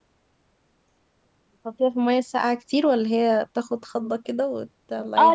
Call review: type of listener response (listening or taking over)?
taking over